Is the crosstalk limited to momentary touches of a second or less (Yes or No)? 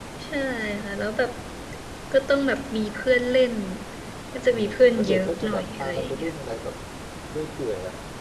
No